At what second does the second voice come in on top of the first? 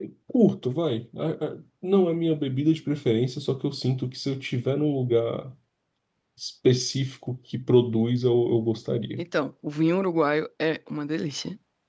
none

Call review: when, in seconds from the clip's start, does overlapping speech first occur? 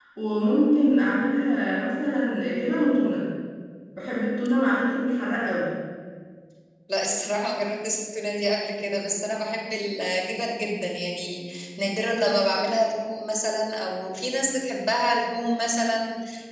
none

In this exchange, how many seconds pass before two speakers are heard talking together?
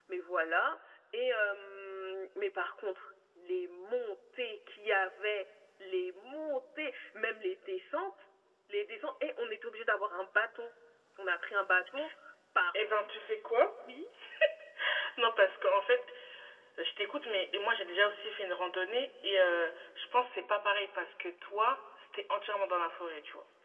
none

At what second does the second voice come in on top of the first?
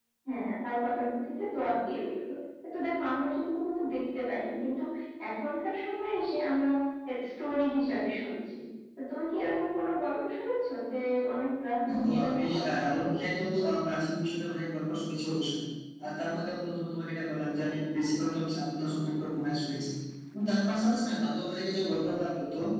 12 s

